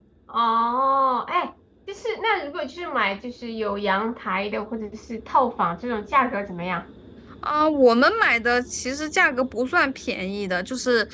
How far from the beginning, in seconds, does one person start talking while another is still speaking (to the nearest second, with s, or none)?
none